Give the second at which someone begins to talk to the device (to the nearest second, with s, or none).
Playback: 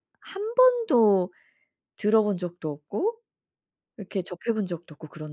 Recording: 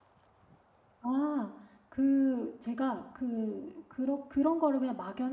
1 s